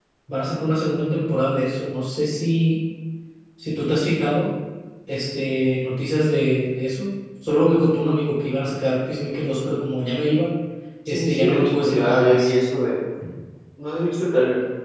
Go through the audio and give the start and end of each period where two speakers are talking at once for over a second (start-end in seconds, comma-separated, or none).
11.1-12.5